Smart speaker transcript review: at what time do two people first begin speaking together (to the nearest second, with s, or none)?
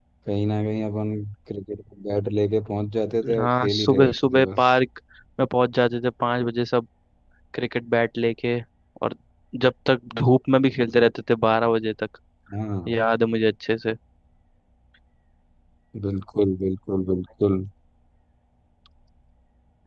3 s